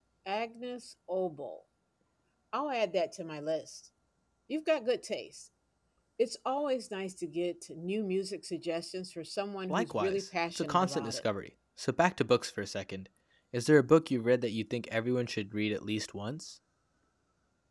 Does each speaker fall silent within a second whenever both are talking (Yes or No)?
No